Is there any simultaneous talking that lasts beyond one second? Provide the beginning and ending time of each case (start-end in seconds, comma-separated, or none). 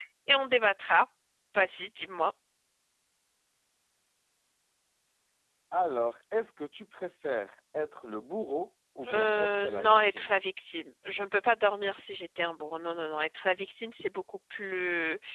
9.1-10.3